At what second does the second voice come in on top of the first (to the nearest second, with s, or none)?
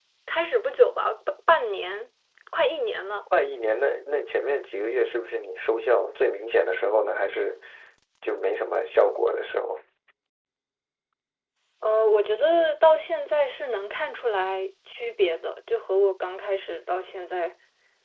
none